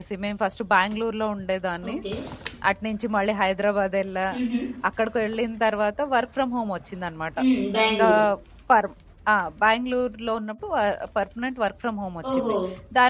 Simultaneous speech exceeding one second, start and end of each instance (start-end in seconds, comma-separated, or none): none